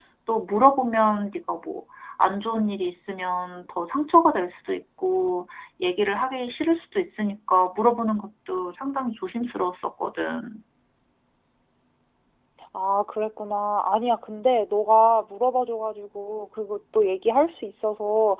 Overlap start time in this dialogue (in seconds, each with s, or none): none